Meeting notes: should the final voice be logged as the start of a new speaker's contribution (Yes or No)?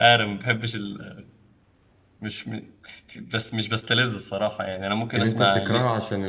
Yes